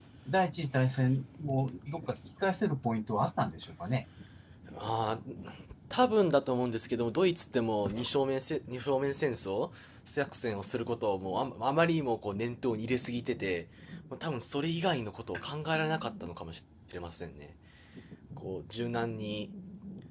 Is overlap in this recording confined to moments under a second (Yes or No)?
Yes